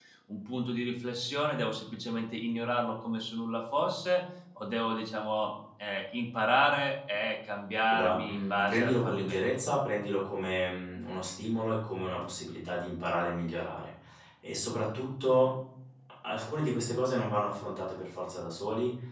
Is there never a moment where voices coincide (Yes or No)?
No